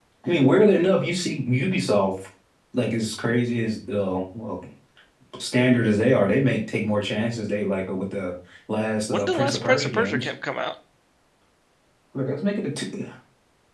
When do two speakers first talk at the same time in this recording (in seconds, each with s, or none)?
9.1 s